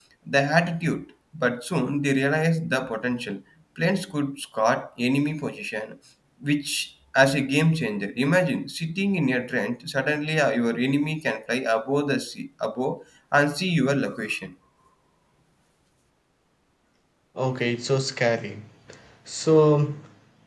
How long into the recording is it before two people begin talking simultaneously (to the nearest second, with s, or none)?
none